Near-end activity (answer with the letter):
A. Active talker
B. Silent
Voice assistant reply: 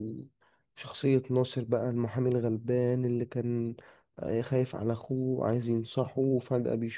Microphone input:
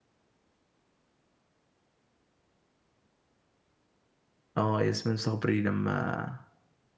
A